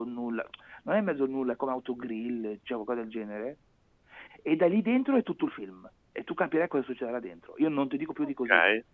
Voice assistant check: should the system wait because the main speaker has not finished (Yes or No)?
No